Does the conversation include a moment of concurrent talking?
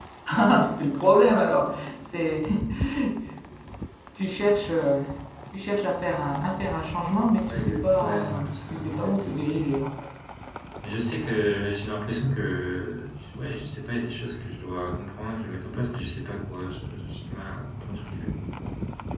Yes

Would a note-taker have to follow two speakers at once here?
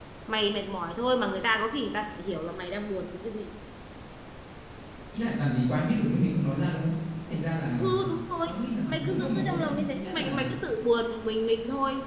Yes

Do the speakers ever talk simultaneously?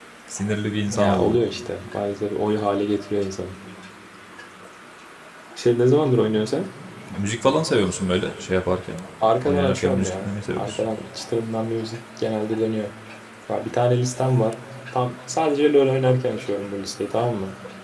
Yes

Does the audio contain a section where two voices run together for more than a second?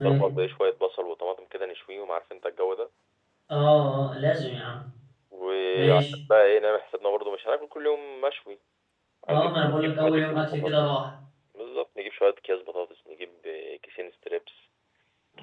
Yes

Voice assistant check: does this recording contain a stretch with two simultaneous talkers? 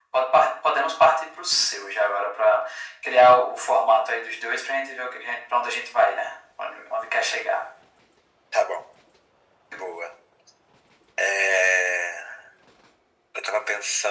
No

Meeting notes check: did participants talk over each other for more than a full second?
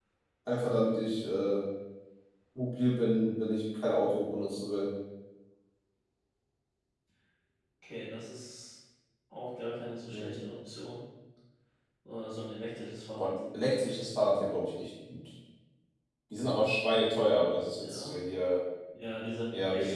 No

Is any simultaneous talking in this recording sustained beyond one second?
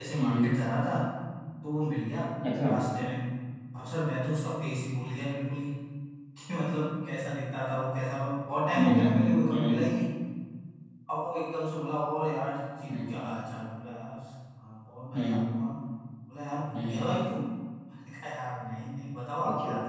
No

